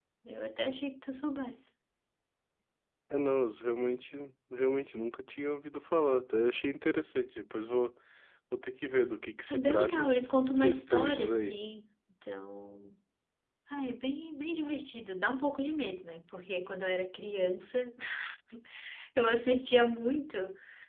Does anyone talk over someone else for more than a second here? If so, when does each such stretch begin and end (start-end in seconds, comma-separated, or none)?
9.5-11.6